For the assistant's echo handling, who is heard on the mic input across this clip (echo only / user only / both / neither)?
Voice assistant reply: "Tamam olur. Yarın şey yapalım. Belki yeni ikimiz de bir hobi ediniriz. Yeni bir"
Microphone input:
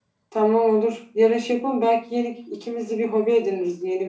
echo only